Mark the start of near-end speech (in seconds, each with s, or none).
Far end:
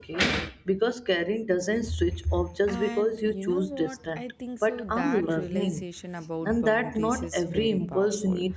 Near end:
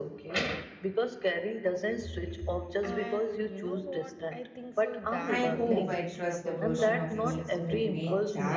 5.3 s